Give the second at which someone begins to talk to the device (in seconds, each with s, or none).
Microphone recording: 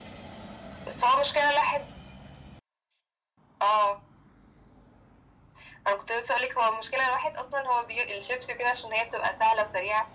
none